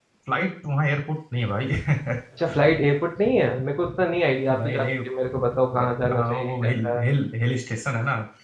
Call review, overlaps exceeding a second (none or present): present